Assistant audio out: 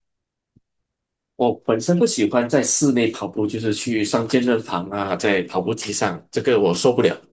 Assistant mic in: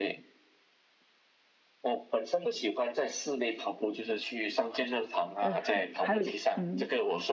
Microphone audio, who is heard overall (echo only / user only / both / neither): both